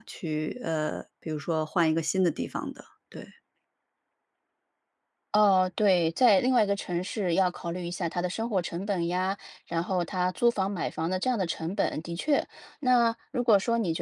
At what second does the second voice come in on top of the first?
none

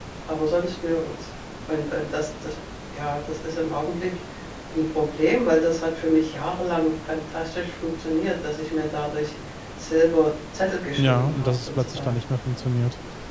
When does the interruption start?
11.0 s

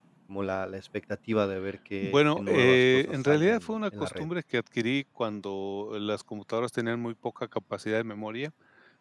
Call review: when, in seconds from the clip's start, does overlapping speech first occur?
2.0 s

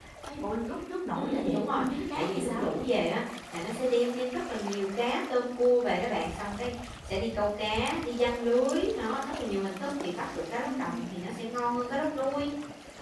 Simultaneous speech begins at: 1.1 s

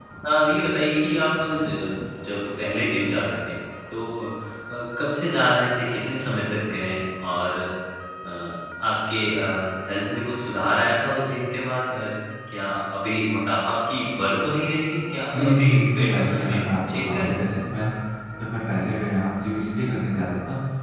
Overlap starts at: 15.3 s

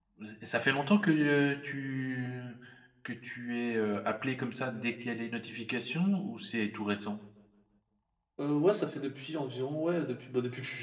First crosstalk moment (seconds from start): none

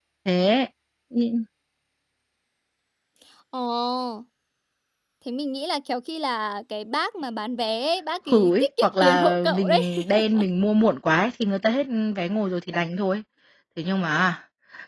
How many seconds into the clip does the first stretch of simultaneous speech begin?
8.3 s

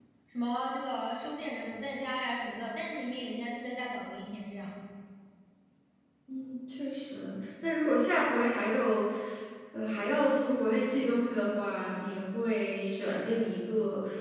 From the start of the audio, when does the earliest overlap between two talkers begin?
none

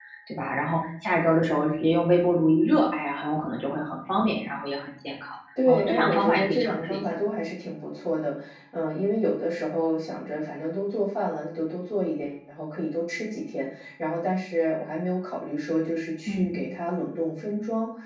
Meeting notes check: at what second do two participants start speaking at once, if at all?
5.7 s

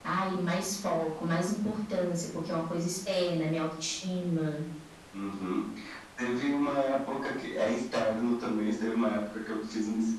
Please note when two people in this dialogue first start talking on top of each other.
none

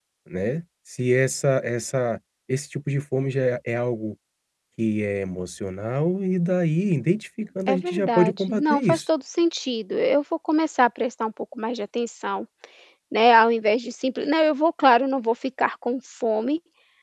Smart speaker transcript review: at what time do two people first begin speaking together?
7.7 s

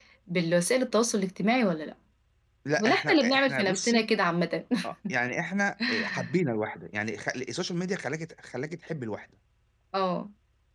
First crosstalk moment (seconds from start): 2.8 s

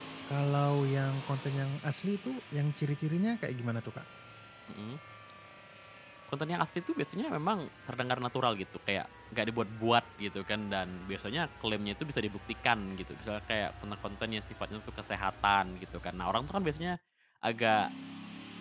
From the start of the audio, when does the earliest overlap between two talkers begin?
none

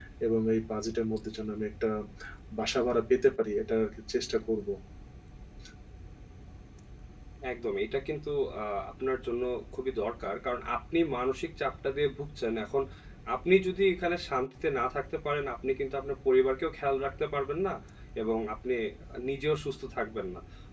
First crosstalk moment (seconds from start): none

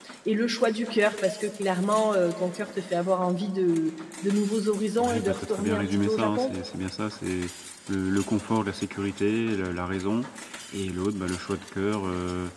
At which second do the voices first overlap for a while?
5.0 s

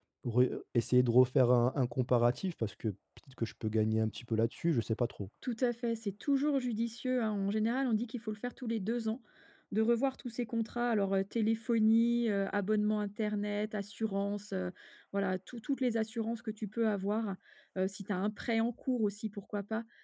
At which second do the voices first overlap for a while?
none

